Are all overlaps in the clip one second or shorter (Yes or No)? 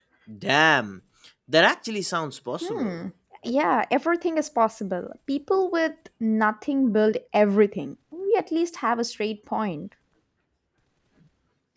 Yes